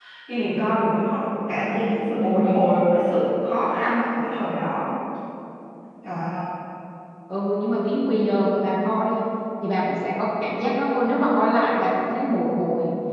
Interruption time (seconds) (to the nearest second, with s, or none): none